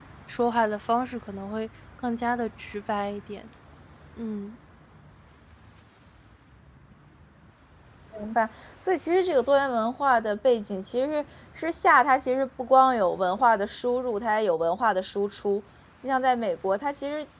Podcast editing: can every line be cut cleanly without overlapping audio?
Yes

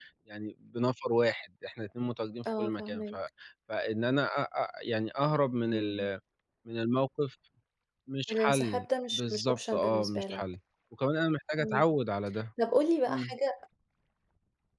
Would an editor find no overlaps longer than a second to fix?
No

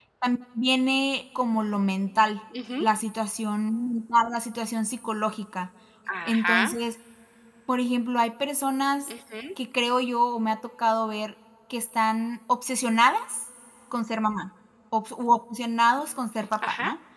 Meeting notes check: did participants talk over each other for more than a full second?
No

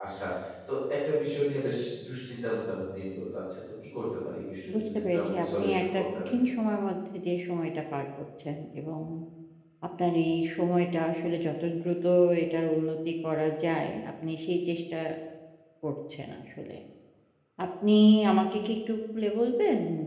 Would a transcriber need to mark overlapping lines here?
Yes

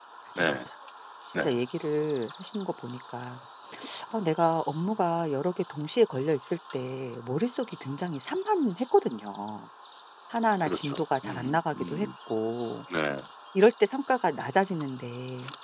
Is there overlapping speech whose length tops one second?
Yes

